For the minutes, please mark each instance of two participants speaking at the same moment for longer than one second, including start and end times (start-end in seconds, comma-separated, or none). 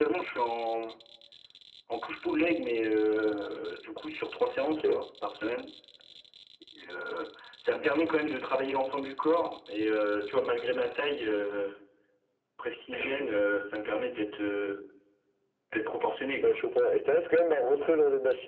none